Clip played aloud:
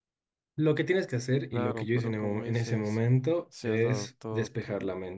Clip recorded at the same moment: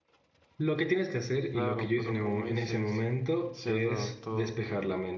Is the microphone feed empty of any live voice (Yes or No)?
Yes